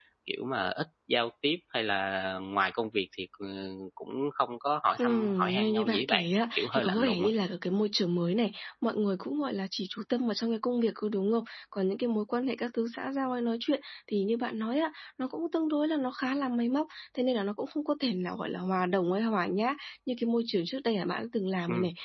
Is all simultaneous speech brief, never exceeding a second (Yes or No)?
No